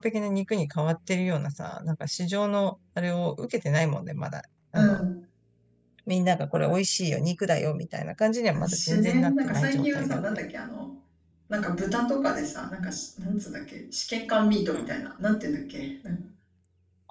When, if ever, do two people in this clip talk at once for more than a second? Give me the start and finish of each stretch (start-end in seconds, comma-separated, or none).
8.7-10.4